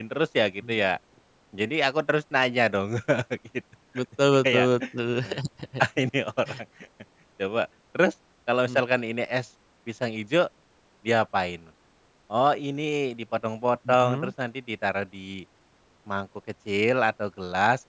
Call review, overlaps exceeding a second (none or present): none